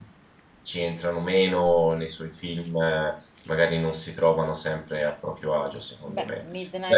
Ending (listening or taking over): taking over